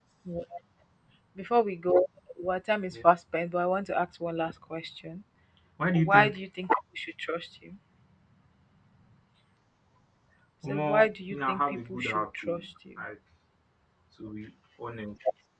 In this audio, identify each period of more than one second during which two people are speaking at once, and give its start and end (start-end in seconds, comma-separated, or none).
10.6-13.0